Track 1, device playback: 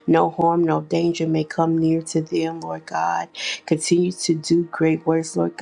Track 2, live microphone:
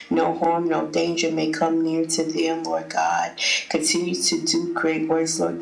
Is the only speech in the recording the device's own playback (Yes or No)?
Yes